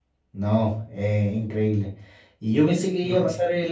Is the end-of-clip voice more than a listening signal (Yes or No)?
No